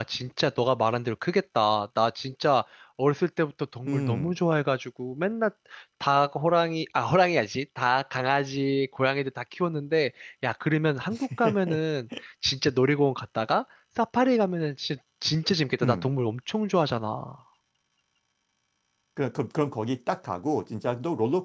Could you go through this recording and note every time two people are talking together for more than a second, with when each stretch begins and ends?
none

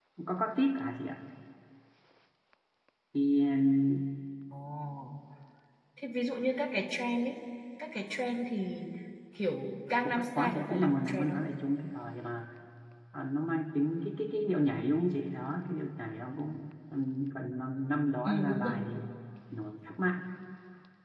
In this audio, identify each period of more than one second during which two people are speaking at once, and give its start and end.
10.0-11.4

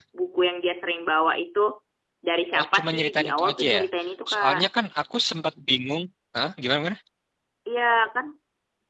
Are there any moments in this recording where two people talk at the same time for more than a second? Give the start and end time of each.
2.6-3.8

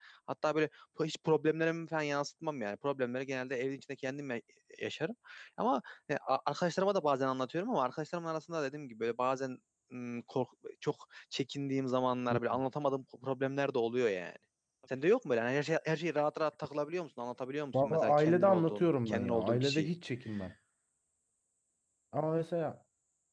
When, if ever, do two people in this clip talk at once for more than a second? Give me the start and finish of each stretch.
17.8-19.9

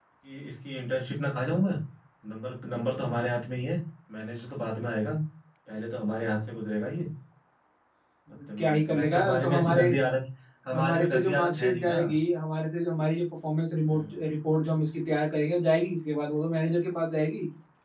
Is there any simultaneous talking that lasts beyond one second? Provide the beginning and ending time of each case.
8.6-9.9, 10.7-12.0

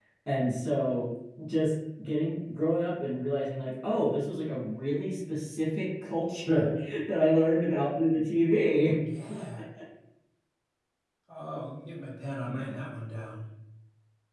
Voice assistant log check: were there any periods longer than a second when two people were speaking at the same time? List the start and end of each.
none

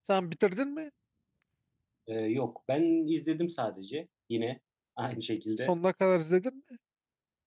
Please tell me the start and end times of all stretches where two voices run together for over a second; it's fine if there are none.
none

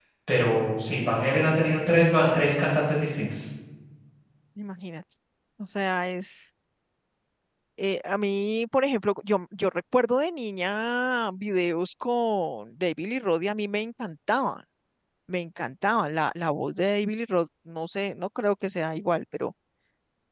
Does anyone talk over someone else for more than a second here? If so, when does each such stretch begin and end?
none

